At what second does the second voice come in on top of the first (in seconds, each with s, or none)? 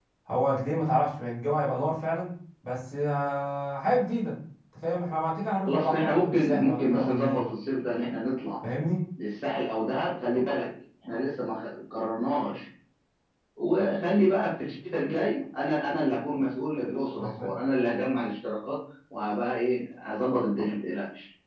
5.7 s